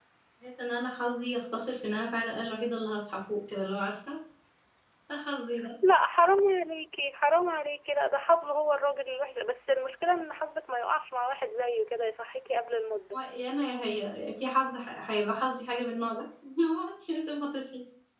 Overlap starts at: none

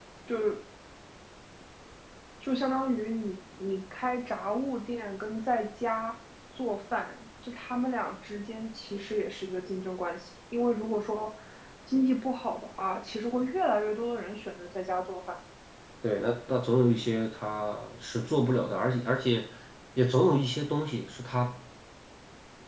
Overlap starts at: none

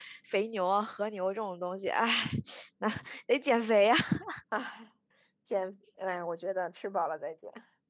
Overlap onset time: none

